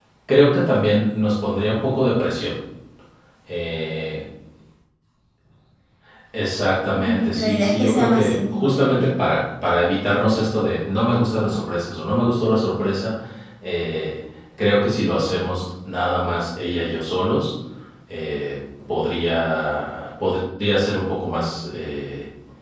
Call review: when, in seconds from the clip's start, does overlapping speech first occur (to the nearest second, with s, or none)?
7 s